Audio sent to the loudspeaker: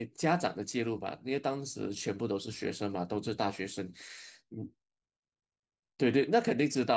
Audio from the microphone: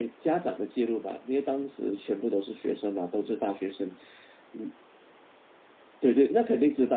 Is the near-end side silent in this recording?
Yes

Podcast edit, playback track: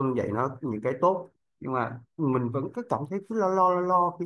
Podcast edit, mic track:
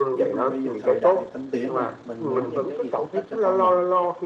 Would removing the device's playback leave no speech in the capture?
No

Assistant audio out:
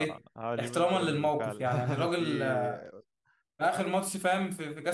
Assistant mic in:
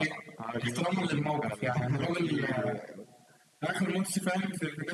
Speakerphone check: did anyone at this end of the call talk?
No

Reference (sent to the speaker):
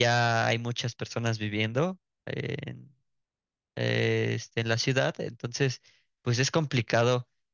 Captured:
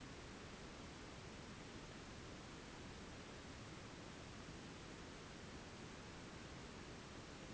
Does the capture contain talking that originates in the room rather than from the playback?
No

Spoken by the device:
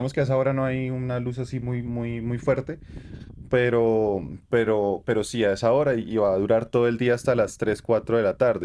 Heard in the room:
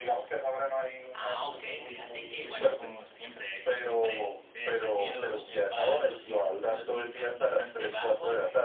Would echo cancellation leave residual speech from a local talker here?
Yes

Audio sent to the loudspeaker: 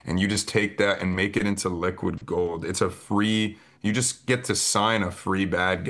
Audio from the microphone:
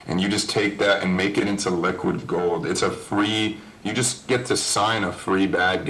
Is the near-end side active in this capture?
No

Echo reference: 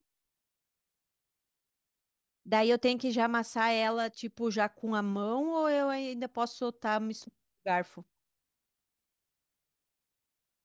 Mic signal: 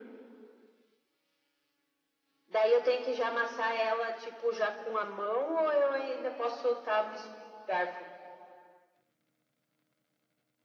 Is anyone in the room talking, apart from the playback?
No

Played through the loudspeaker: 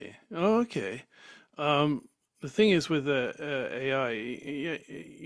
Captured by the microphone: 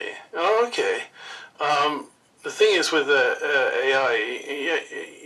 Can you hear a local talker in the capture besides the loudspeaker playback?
No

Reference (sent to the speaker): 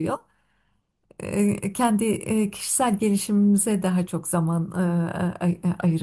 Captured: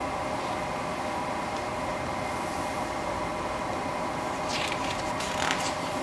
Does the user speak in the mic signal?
No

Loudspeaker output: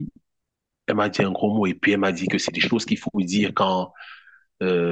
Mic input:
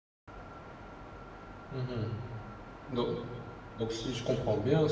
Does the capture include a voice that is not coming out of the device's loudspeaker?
Yes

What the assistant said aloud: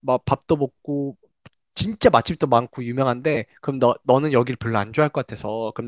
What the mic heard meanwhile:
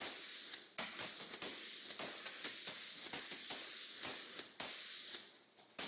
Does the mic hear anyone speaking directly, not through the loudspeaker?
No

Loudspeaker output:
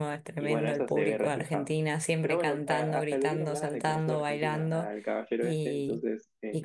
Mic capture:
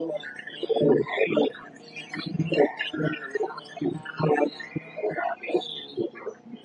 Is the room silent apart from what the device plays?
Yes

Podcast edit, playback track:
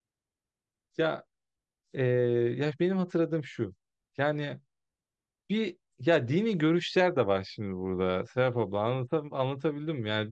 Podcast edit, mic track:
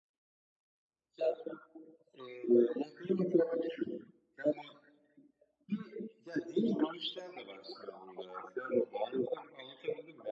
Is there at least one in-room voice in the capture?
No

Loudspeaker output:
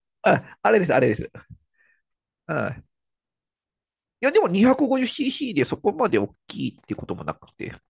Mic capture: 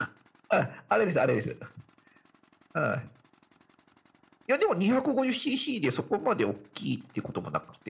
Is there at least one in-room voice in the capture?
No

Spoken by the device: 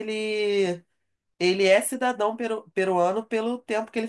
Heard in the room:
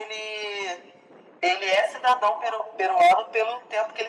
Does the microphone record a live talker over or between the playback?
No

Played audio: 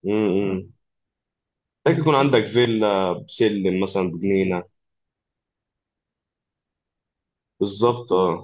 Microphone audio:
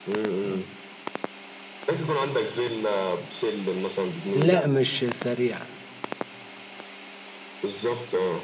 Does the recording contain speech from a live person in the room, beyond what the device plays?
Yes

